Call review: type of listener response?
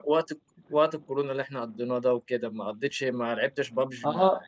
taking over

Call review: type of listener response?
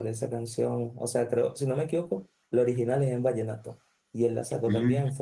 listening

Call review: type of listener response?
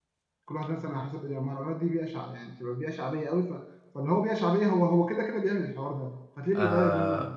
taking over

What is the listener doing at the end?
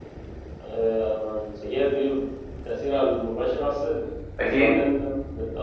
listening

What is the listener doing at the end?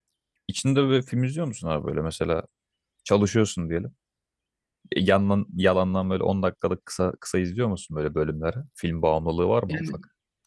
taking over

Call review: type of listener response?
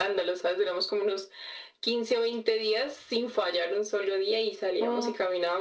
listening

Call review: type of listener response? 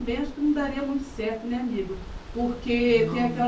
listening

